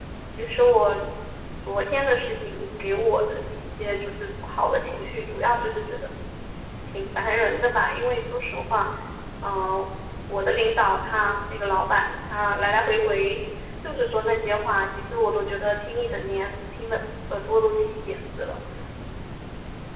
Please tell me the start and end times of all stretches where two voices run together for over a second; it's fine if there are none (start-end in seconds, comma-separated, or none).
none